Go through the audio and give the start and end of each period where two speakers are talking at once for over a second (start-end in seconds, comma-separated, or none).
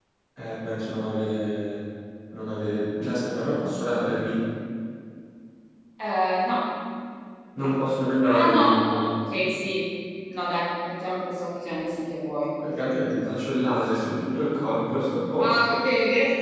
8.2-9.4